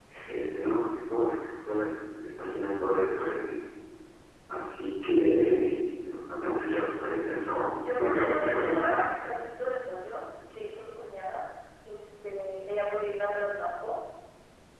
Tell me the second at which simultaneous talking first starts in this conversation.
7.8 s

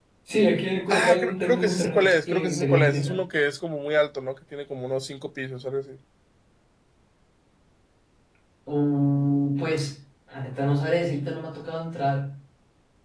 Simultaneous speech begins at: 0.9 s

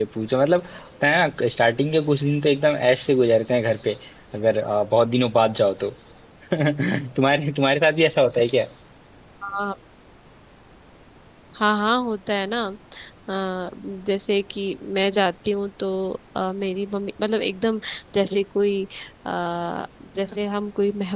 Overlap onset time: none

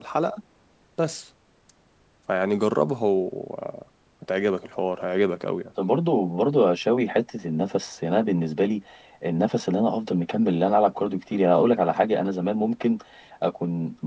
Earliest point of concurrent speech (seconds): none

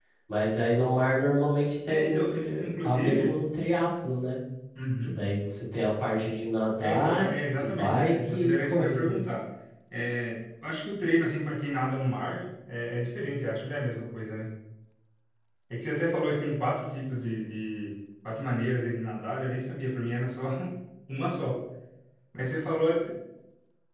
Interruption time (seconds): 1.9 s

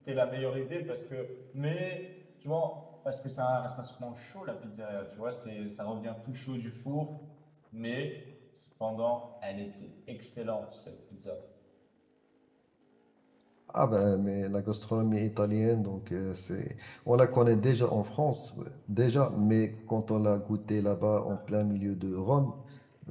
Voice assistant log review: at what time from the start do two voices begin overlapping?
none

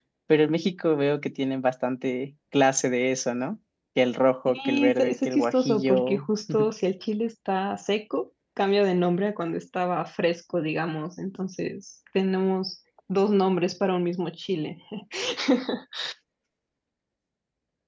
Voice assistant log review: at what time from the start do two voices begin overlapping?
4.5 s

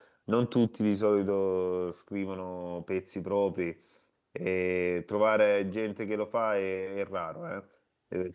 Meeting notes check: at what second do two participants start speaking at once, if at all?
none

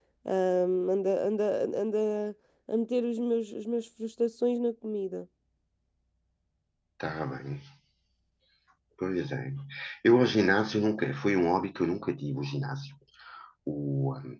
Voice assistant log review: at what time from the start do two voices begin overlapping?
none

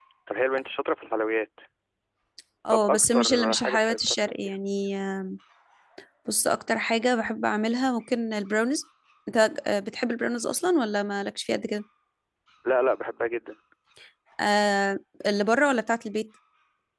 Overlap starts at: 2.7 s

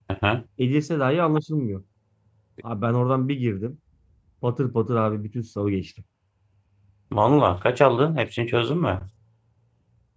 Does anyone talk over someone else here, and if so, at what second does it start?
none

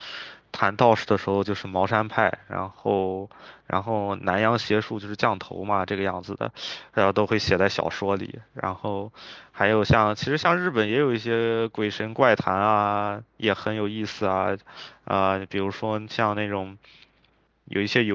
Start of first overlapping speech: none

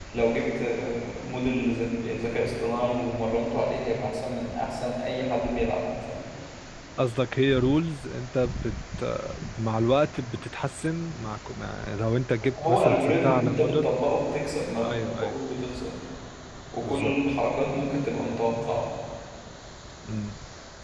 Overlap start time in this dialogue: 12.6 s

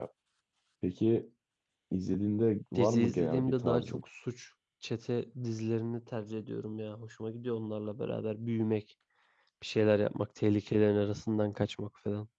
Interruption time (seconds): 2.8 s

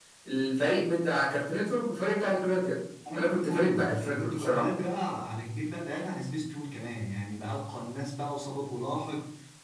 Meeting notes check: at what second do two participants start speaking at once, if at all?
3.0 s

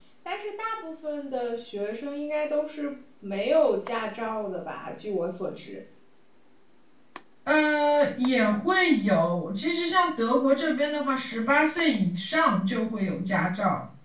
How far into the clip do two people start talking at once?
none

